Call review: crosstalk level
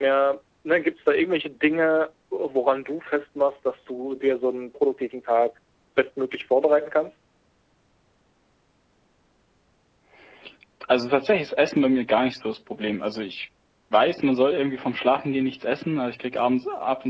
none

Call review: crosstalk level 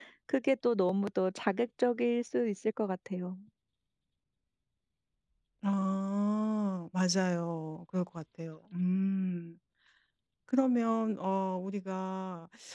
none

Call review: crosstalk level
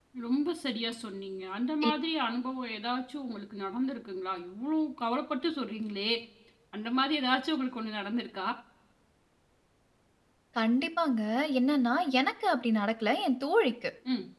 none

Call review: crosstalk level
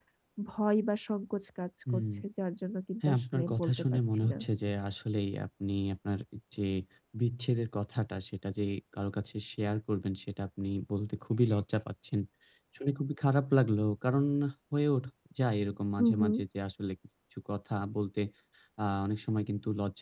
present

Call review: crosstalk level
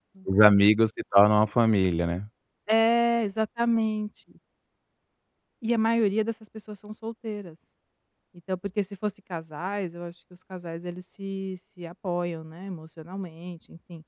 none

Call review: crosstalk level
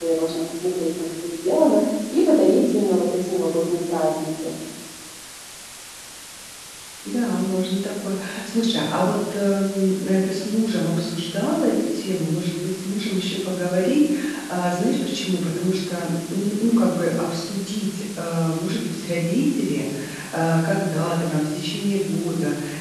none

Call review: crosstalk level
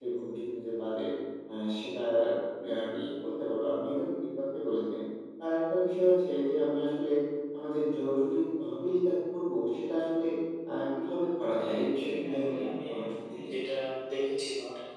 present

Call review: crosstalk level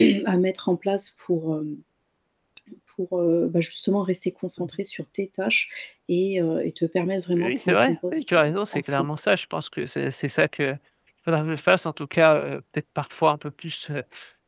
present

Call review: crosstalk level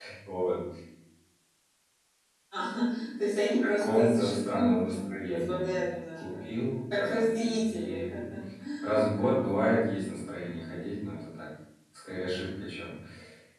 present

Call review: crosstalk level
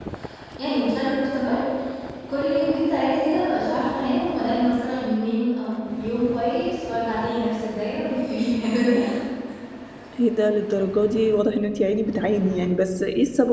none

